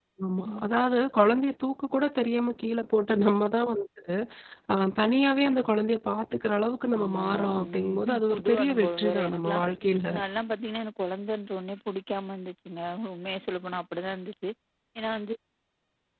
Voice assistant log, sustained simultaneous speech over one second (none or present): present